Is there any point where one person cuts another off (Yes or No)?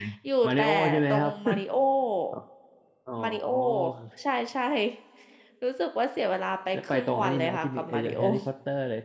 Yes